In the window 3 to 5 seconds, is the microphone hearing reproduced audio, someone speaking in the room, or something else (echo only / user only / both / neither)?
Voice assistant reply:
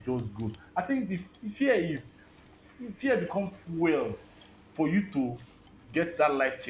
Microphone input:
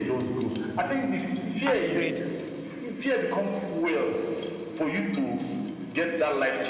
echo only